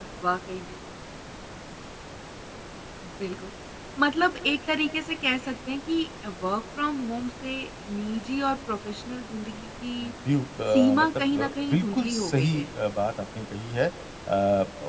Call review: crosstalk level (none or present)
present